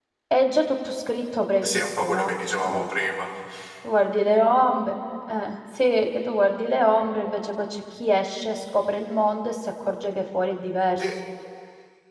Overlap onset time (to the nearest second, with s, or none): 2 s